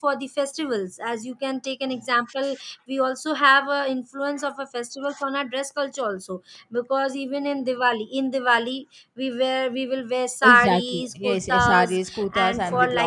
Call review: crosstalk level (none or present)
present